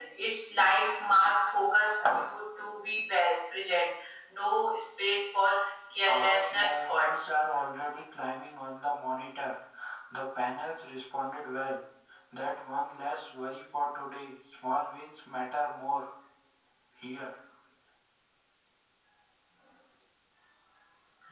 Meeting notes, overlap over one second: present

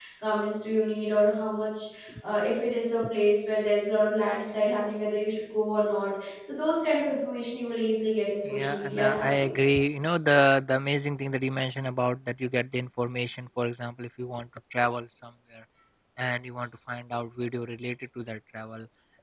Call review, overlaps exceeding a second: present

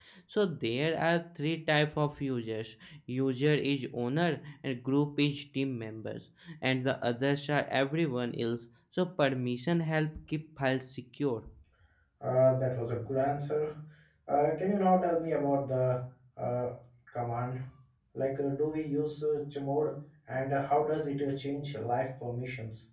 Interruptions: none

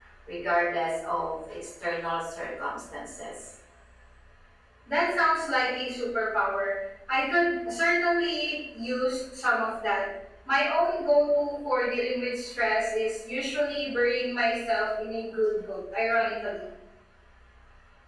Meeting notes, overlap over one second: none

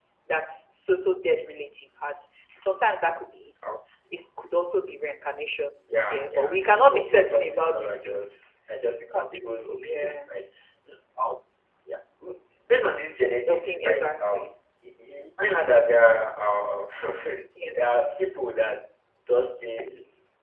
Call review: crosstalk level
present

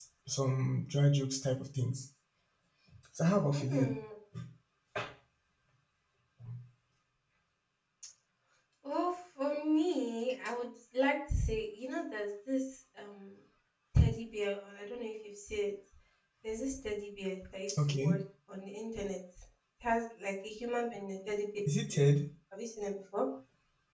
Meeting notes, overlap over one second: none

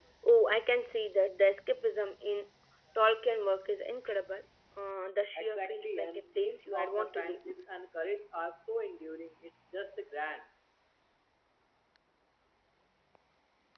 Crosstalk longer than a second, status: present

